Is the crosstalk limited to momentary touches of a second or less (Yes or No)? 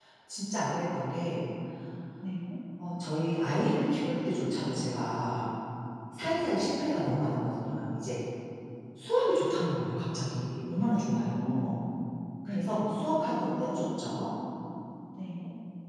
Yes